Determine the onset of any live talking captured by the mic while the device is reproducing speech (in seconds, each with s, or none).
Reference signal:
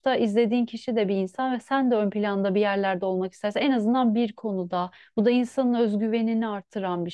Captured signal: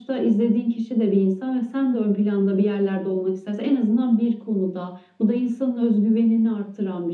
none